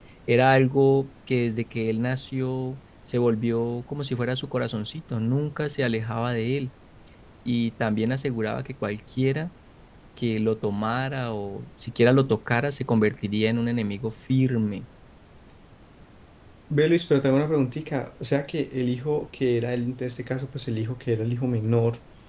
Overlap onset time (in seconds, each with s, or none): none